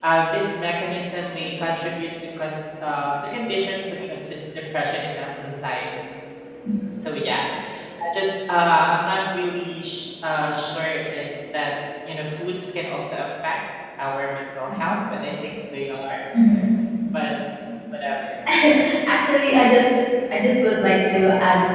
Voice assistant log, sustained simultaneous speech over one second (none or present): none